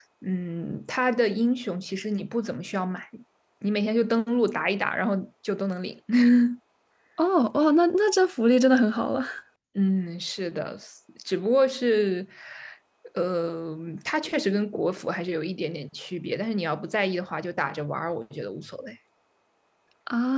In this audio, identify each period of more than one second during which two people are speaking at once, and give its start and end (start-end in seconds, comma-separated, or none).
none